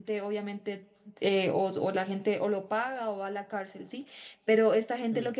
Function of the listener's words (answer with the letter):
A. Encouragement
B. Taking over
A